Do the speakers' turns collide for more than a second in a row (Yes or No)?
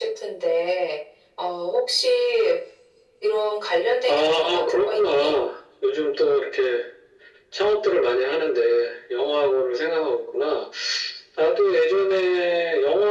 Yes